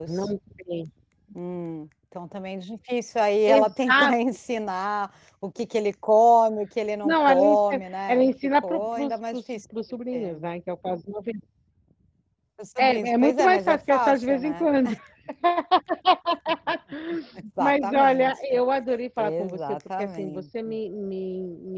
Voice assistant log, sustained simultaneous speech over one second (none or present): present